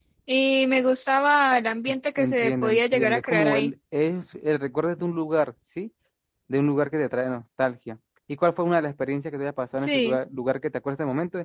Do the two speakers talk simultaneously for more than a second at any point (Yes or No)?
Yes